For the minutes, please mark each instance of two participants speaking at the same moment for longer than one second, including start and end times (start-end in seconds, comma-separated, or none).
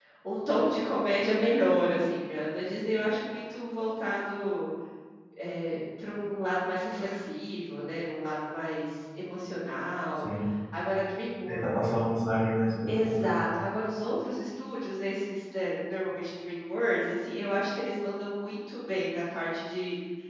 none